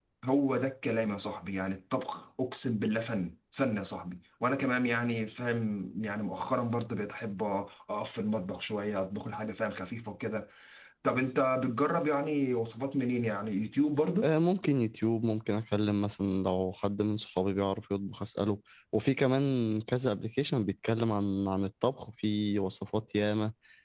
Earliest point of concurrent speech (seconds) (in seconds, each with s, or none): none